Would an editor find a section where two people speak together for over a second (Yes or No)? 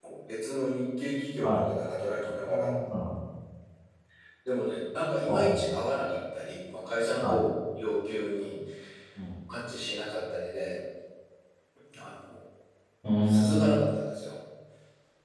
No